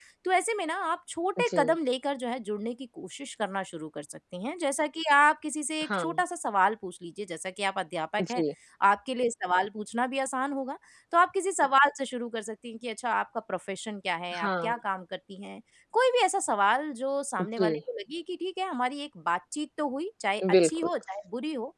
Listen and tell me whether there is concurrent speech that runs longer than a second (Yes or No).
No